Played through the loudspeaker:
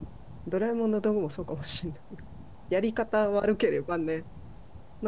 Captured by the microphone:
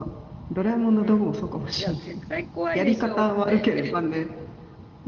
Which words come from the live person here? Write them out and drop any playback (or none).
うん。いや、絶対怖いでしょうって。